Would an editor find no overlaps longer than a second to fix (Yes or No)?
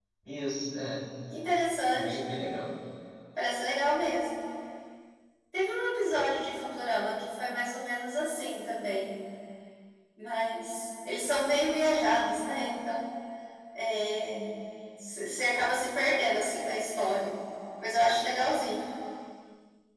Yes